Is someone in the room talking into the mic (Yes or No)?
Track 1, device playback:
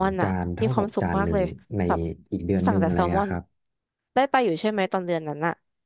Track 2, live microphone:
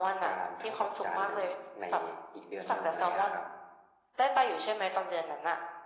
No